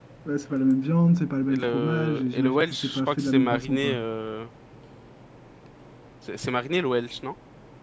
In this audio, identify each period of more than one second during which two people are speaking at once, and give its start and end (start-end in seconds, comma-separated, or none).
1.5-4.0